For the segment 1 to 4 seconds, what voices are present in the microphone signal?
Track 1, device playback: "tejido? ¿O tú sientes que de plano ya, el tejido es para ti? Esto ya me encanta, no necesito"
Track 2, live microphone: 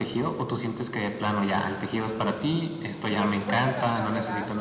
both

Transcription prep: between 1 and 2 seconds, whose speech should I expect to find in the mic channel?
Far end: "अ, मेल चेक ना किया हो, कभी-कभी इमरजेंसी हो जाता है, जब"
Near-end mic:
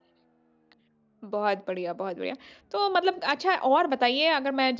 user only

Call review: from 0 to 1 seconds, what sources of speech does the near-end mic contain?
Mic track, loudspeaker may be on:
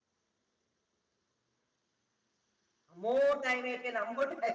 neither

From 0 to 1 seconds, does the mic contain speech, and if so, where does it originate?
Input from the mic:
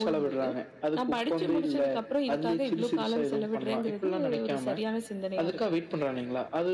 echo only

